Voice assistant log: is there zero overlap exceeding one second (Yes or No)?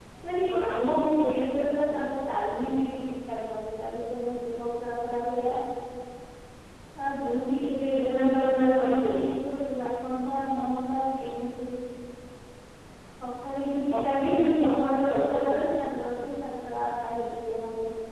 No